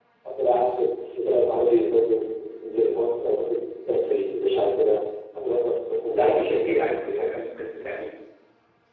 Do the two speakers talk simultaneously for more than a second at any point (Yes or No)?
Yes